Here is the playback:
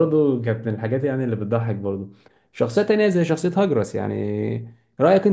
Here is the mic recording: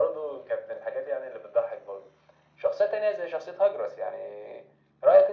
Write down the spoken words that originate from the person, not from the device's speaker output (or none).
none